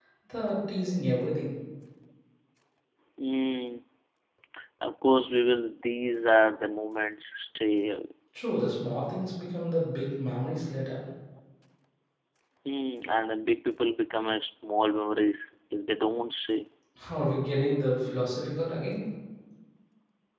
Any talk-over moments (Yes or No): No